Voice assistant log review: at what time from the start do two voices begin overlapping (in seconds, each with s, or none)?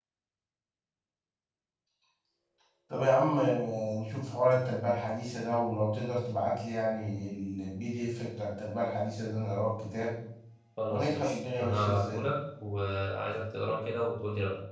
10.9 s